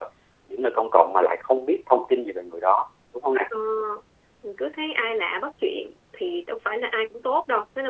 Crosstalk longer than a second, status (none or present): none